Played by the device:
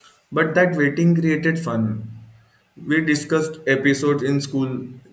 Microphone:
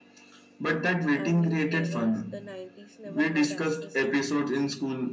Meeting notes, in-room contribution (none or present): present